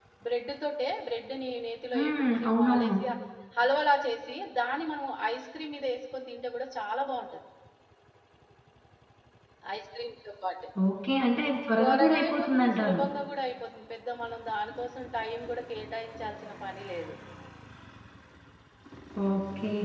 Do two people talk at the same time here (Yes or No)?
Yes